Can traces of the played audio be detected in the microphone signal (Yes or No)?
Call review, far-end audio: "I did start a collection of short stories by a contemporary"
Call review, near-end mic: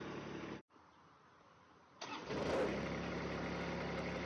No